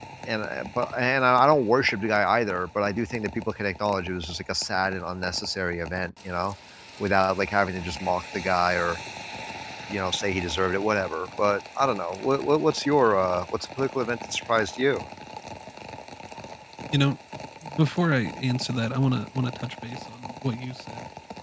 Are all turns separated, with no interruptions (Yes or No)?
Yes